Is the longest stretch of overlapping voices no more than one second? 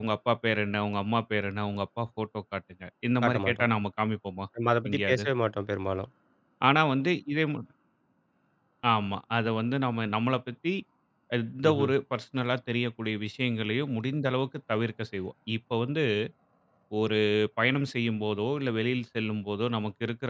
Yes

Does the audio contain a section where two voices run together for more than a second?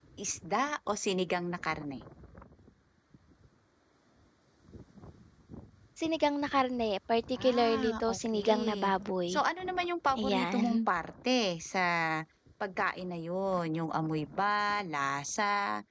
Yes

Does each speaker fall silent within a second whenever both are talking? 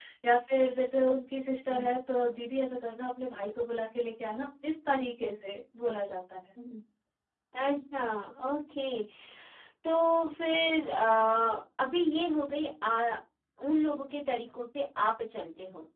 Yes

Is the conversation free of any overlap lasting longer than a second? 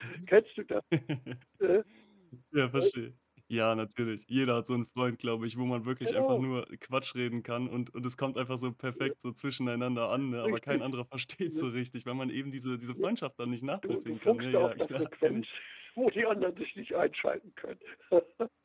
No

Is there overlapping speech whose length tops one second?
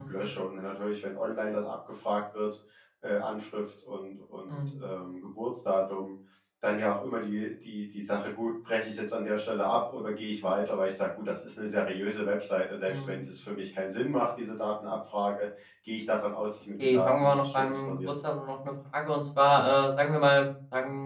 Yes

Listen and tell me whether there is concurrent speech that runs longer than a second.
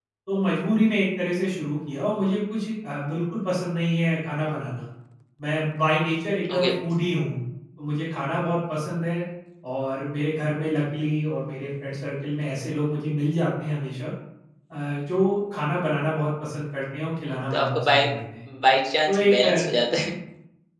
No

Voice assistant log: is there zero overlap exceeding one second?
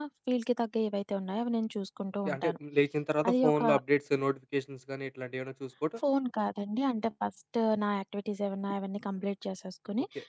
Yes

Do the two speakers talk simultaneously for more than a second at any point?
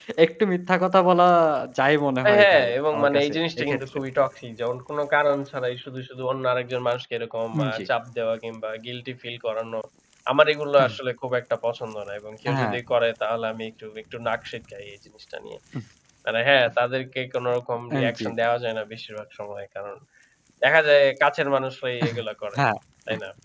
Yes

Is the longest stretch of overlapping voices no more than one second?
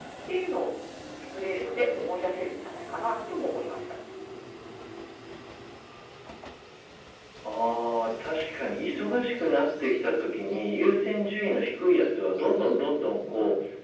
Yes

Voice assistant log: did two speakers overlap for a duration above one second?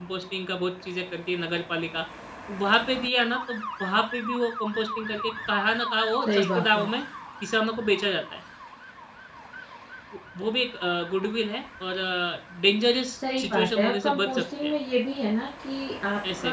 Yes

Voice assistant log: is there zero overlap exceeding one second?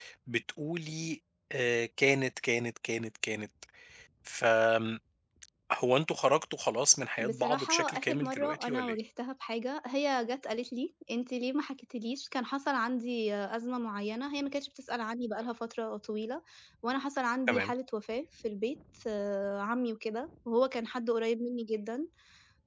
No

